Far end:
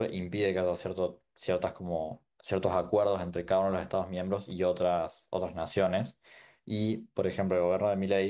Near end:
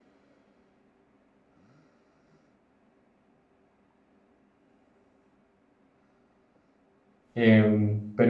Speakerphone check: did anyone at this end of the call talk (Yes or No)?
Yes